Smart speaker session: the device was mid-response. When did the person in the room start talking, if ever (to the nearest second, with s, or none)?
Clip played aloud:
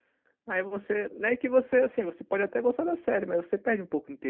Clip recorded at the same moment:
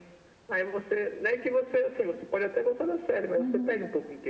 3 s